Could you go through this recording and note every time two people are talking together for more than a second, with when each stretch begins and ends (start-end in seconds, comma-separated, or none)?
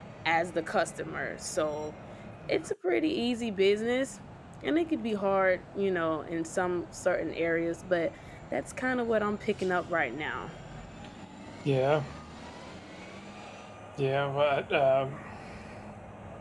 none